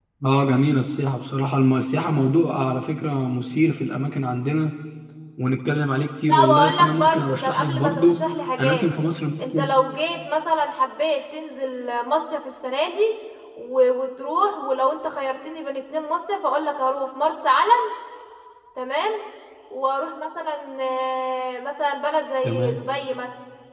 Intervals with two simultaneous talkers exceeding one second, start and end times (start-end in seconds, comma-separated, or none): 6.3-8.2